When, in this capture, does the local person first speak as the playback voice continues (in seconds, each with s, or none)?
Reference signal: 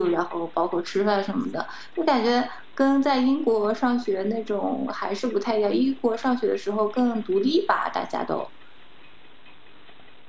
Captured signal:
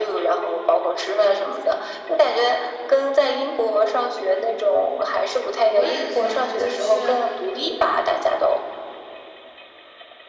5.7 s